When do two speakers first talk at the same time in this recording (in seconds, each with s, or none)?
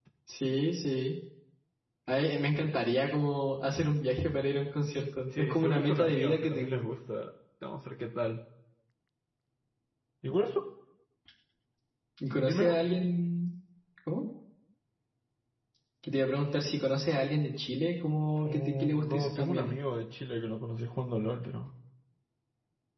5.4 s